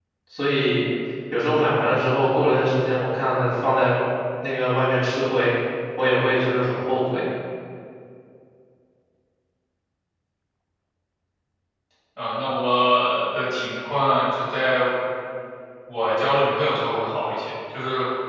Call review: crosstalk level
none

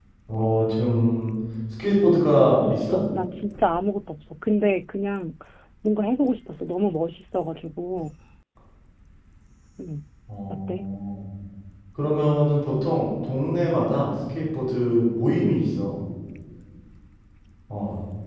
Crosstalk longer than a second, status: none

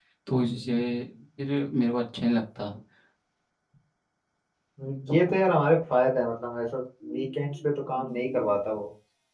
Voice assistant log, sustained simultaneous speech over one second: present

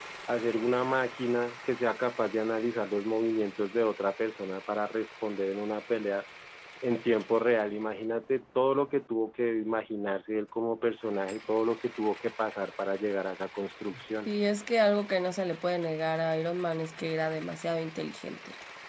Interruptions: none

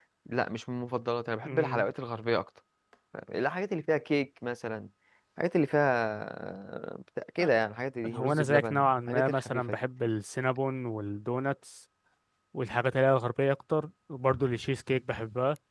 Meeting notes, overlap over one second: present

